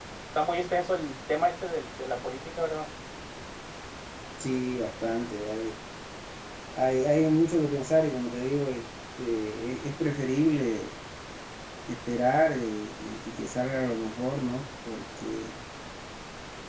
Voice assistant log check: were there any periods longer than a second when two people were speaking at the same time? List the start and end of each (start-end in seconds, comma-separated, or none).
none